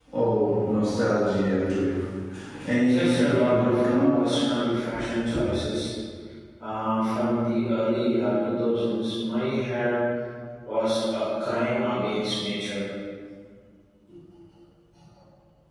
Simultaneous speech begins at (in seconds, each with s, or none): 2.8 s